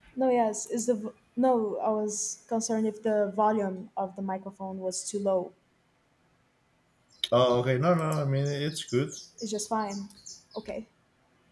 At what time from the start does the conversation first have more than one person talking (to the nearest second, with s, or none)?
none